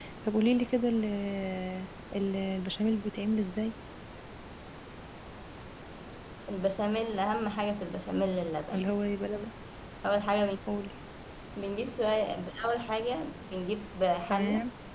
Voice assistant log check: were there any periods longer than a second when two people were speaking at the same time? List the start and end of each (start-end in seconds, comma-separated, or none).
none